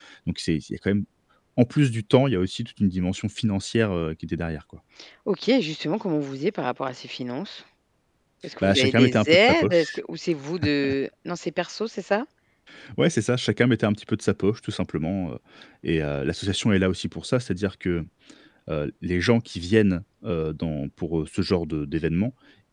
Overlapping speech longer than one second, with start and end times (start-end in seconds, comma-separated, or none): 8.6-10.0